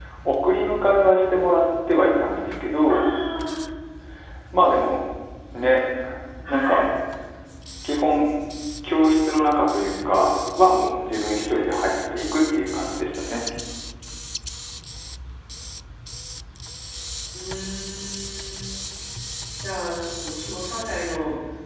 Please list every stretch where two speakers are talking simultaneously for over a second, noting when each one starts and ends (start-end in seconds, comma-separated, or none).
none